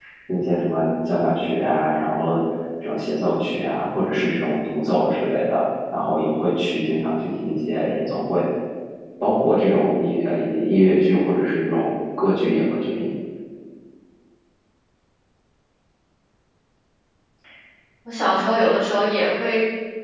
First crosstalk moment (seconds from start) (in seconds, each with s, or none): none